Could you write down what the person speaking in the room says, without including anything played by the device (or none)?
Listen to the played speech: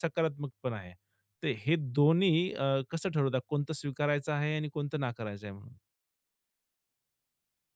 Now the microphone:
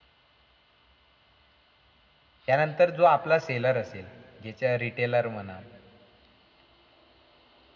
त्यानंतर जो आपला सेलर असेल, ज्याच्या रिटेलर म्हणा,